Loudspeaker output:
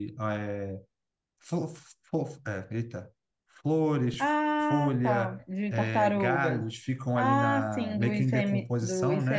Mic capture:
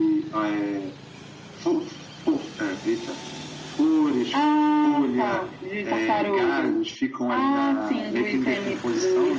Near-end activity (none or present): none